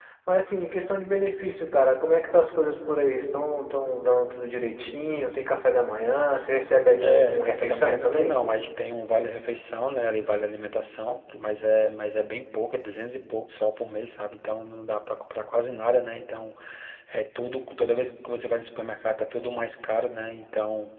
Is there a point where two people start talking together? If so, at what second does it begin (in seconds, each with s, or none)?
7.0 s